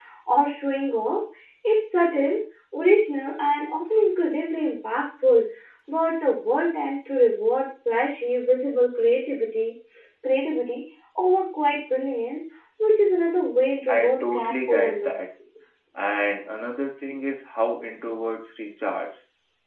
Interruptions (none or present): present